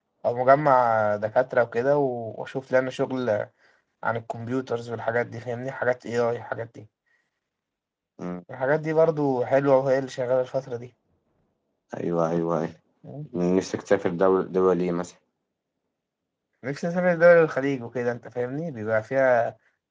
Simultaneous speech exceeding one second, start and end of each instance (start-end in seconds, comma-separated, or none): none